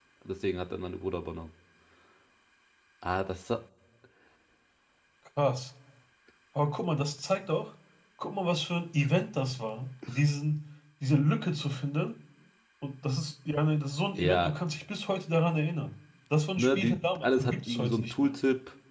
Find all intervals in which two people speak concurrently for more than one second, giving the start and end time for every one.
16.6-18.4

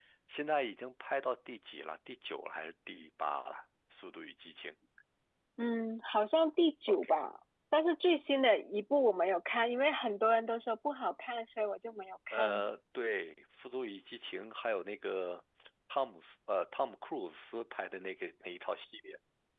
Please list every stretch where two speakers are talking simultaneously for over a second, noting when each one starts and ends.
none

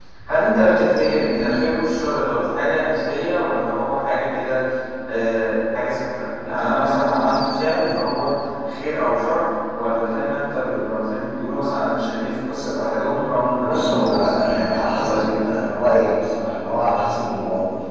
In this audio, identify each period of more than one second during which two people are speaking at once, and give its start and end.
13.6-15.5

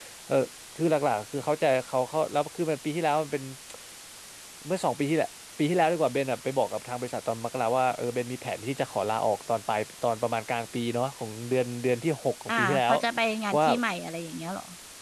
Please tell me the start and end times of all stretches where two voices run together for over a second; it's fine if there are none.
none

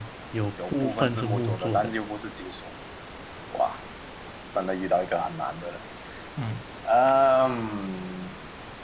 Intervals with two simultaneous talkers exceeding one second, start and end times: 0.7-1.9

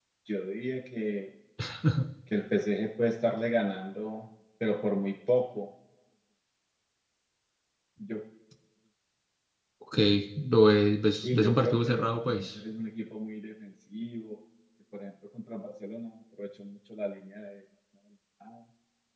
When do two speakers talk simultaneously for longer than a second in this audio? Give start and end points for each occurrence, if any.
11.2-12.5

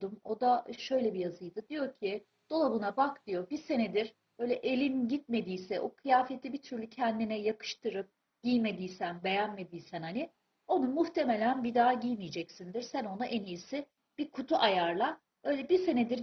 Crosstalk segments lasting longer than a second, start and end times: none

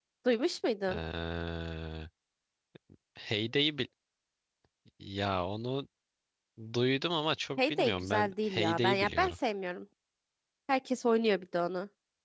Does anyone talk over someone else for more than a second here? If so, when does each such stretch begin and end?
7.6-9.3

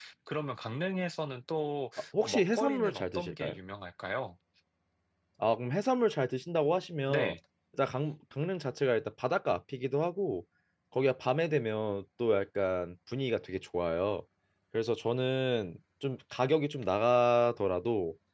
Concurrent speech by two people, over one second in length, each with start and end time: 2.2-3.6

